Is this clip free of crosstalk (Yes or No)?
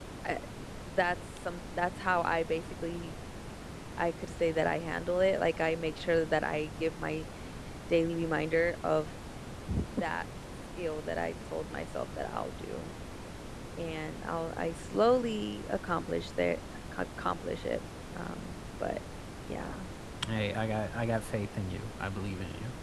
Yes